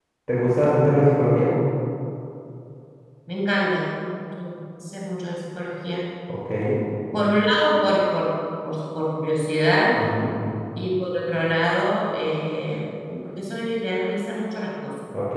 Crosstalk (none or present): none